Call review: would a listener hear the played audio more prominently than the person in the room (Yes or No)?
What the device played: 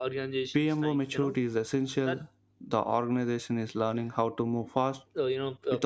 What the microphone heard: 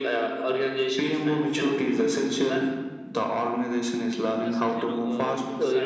Yes